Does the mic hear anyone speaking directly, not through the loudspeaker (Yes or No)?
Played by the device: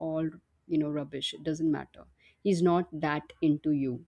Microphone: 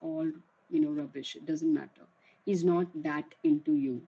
No